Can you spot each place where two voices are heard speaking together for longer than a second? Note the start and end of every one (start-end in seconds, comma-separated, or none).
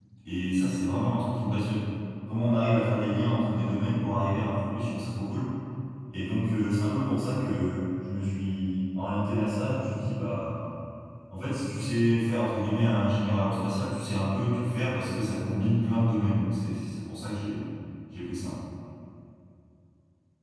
none